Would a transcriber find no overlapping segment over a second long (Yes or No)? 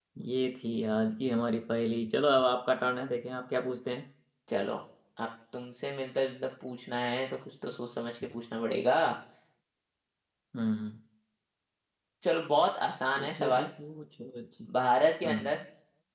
Yes